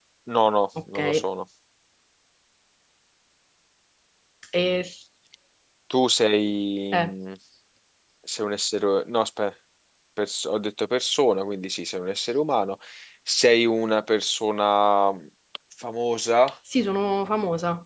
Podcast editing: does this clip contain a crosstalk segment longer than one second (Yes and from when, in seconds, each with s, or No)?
No